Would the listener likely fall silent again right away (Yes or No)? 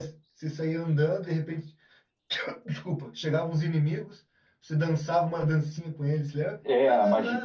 No